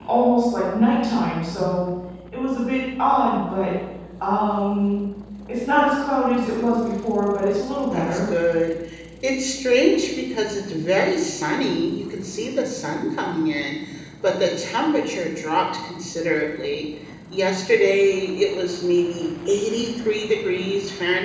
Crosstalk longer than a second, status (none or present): none